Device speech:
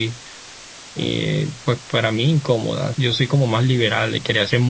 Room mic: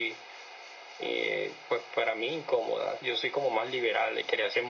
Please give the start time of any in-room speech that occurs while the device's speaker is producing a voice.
none

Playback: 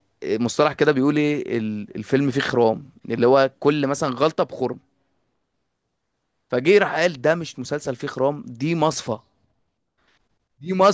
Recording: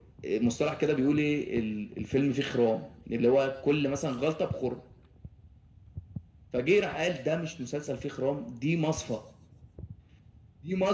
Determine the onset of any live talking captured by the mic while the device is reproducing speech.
none

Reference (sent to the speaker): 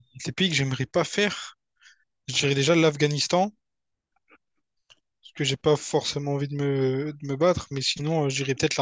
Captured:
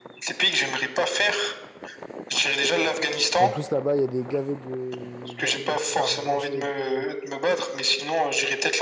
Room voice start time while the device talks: 3.4 s

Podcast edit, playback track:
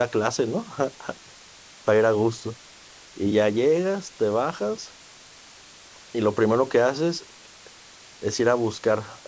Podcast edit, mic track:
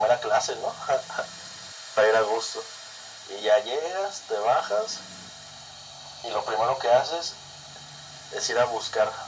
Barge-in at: none

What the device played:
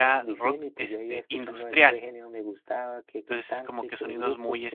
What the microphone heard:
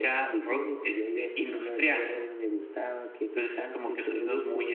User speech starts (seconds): none

